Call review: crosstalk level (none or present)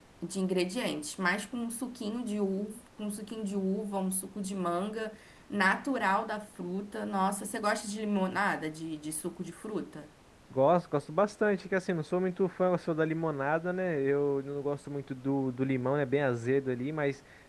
none